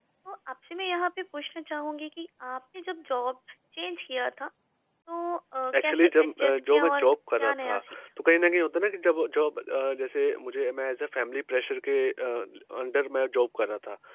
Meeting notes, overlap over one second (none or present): present